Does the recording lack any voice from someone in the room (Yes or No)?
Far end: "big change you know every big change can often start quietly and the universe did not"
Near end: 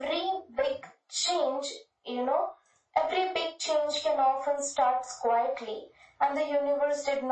Yes